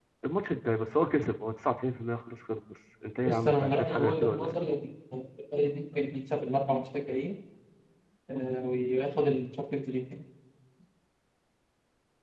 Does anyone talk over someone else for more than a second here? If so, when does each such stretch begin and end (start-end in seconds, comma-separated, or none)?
3.3-4.5